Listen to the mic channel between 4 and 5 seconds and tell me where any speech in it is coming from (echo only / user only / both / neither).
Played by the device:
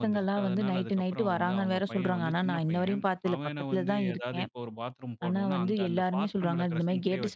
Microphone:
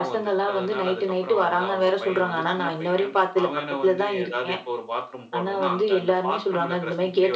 echo only